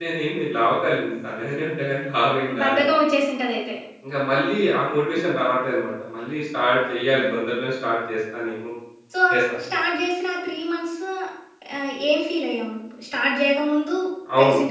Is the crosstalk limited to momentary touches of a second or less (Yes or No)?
Yes